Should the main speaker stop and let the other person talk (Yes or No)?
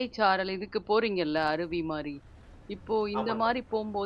No